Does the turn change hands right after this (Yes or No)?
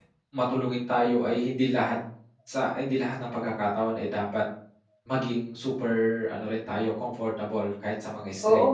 Yes